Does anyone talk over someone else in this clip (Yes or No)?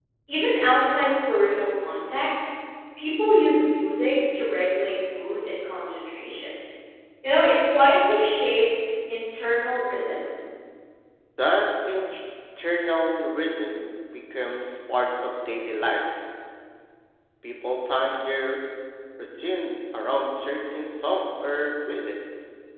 No